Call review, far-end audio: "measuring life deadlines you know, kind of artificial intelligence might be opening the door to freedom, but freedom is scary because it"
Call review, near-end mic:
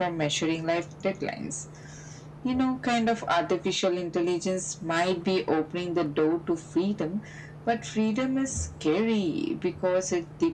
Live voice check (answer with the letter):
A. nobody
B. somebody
A